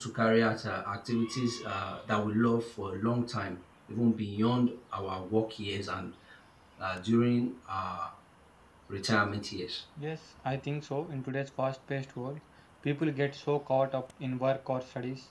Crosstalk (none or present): none